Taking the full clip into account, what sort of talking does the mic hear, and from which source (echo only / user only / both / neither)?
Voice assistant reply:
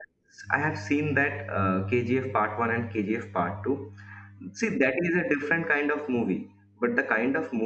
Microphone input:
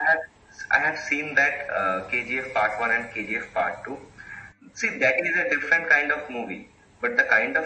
echo only